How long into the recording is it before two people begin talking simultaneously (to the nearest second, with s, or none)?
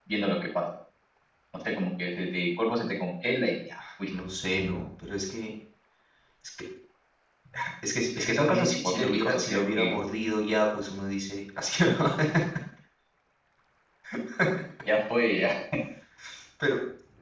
8 s